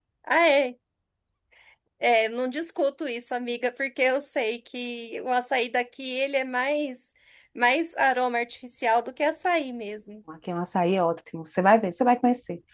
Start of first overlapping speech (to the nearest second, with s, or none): none